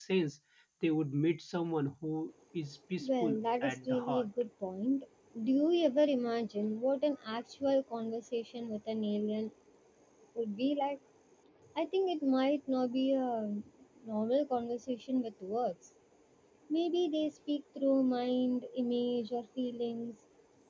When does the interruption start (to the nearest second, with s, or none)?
3 s